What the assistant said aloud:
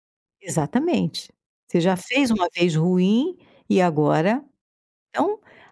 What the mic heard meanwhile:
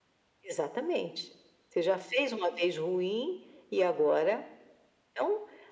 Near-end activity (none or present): none